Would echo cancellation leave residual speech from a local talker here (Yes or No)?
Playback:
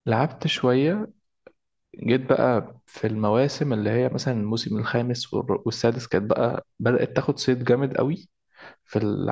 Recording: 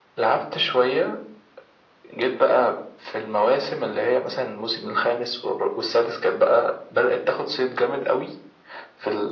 No